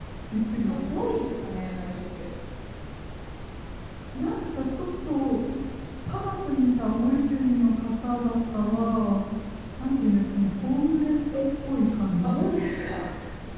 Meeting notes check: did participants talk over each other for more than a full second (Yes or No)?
No